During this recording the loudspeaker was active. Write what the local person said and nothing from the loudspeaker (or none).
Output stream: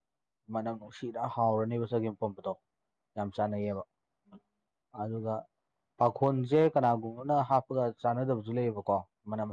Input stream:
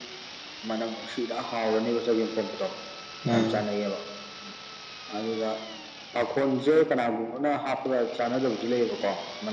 ꯎꯝ